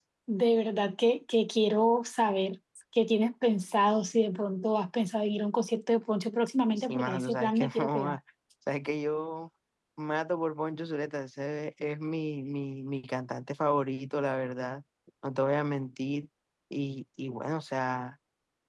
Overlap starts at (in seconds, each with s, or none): 6.8 s